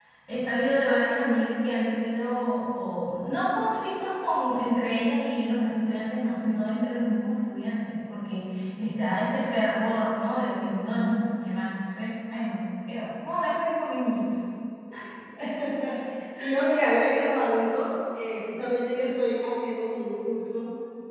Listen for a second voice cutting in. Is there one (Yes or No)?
No